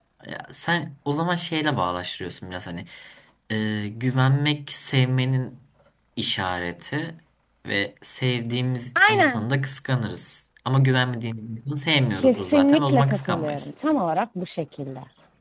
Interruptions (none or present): present